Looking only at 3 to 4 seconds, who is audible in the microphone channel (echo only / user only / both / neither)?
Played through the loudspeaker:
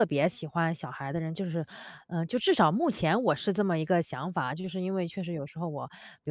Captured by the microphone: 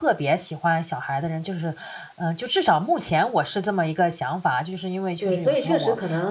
echo only